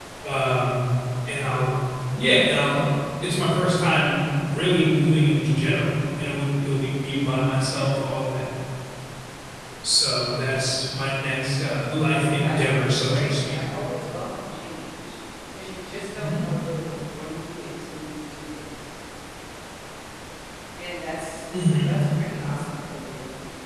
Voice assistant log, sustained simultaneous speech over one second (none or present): present